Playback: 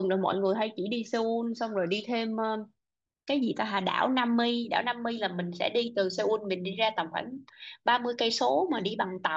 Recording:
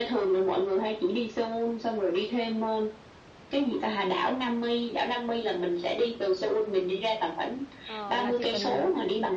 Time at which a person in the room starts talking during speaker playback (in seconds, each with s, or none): 7.8 s